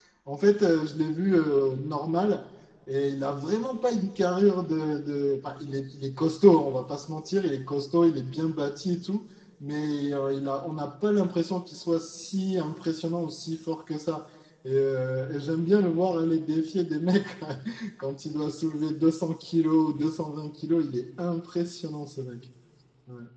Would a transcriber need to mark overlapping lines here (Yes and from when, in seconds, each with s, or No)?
No